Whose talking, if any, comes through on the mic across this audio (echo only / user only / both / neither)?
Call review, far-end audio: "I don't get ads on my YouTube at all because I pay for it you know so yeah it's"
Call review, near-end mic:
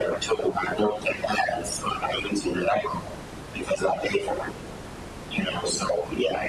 echo only